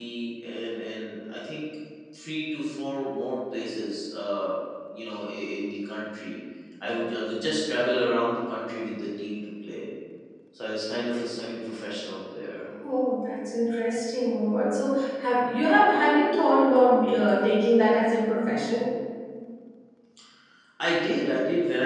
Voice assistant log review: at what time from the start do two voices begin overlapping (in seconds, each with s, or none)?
none